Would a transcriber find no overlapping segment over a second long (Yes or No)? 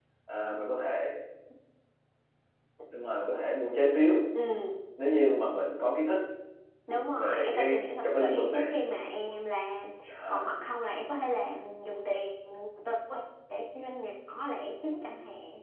No